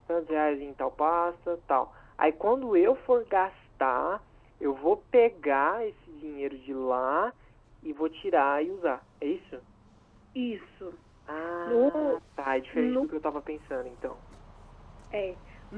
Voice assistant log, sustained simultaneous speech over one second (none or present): none